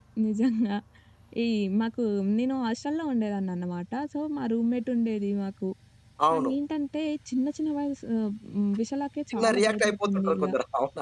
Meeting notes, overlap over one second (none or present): present